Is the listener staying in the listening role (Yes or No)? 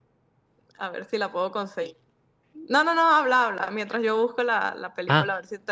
No